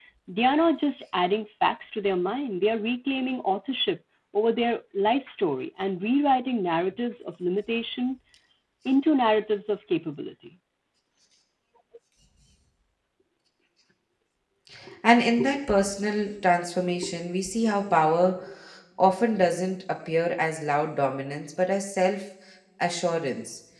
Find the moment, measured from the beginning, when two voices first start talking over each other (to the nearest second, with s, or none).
none